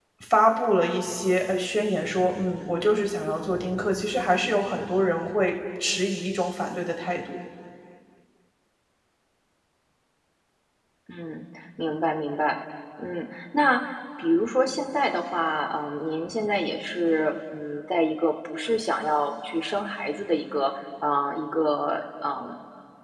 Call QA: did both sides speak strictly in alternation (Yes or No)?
Yes